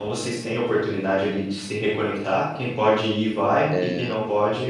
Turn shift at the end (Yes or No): No